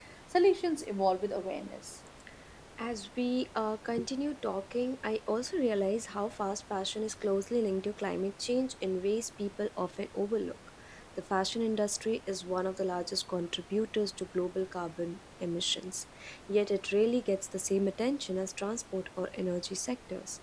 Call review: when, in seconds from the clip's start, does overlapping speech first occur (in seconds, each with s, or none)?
none